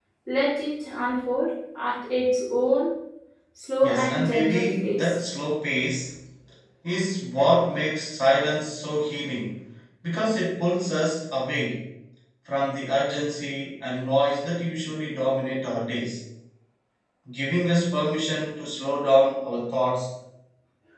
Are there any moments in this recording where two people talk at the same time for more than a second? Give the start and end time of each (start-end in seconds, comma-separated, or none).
3.8-5.2